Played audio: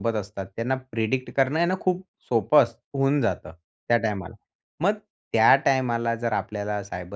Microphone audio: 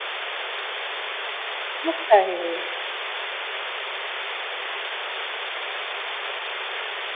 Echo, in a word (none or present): none